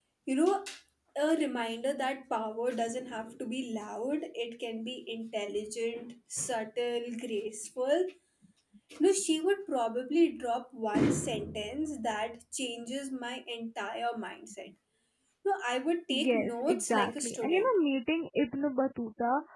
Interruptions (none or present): present